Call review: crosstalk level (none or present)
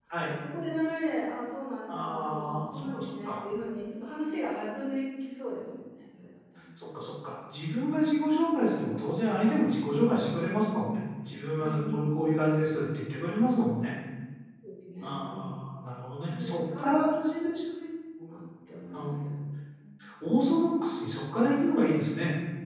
present